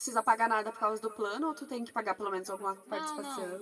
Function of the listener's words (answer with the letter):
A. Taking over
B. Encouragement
A